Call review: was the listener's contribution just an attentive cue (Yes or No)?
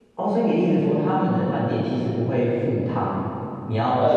No